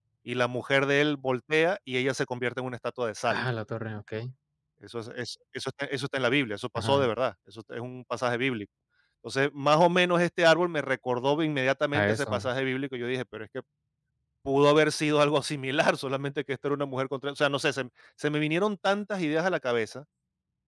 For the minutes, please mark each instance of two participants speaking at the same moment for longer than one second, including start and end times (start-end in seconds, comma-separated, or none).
none